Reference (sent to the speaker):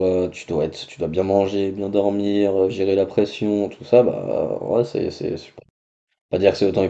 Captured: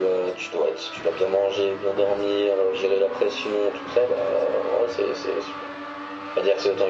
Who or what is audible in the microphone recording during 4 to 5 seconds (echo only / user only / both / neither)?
echo only